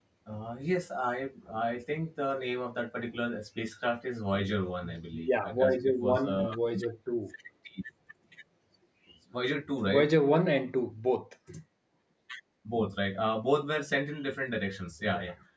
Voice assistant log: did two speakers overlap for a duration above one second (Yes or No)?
Yes